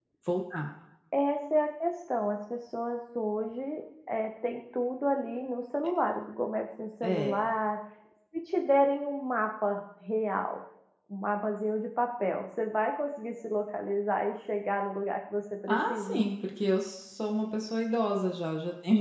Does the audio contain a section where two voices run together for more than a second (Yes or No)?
No